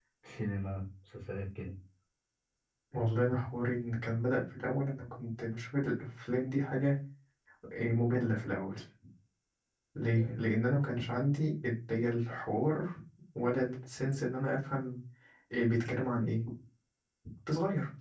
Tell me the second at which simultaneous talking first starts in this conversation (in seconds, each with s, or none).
none